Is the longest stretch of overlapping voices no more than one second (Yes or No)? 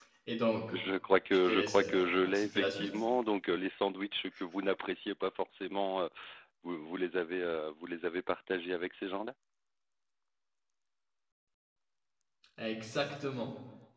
No